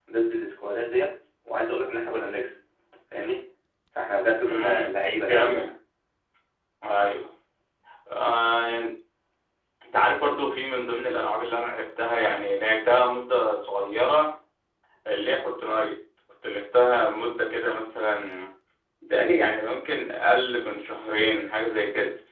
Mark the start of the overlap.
4.5 s

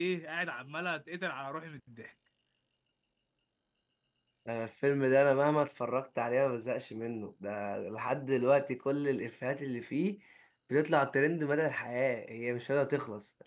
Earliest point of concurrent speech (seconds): none

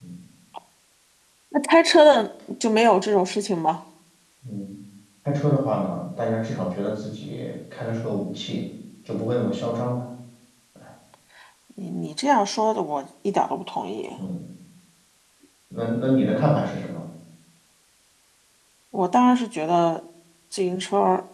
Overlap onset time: none

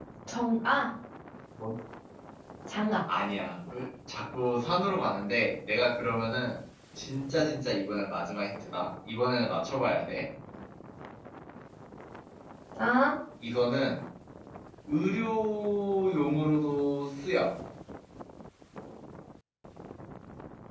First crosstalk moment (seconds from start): none

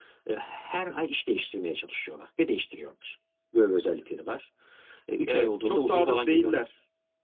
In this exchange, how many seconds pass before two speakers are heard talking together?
5.3 s

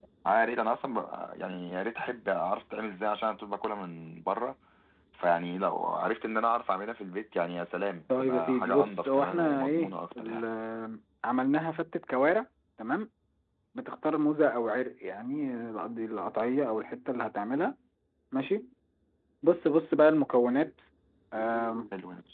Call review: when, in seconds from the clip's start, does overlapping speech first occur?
8.1 s

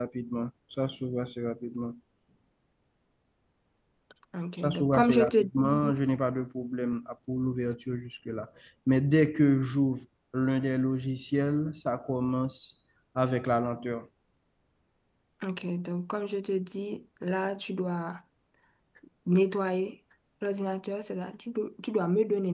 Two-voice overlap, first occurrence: 4.6 s

